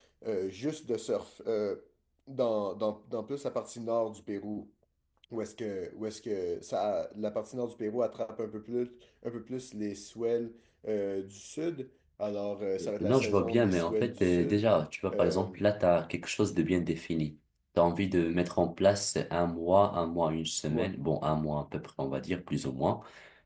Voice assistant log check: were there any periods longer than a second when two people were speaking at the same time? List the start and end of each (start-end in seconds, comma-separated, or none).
13.0-14.6